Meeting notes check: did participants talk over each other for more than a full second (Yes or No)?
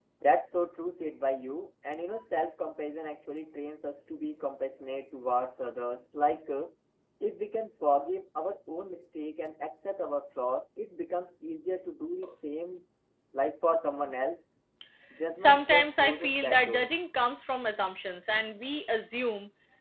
Yes